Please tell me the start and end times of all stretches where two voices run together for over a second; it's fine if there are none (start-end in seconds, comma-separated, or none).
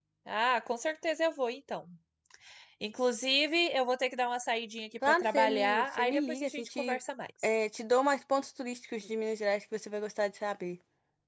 5.1-7.0